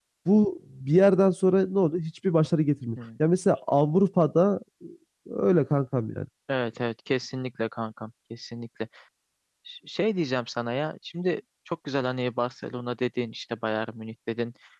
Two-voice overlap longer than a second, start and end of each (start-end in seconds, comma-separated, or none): none